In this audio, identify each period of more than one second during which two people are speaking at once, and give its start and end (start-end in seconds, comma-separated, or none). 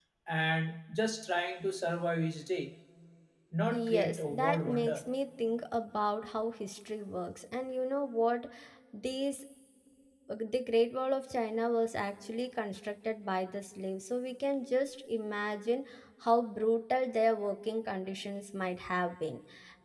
3.7-5.0